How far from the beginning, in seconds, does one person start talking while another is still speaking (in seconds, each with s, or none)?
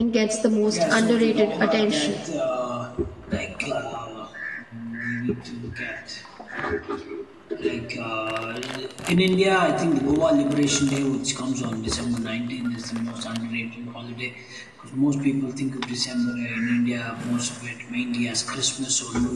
0.7 s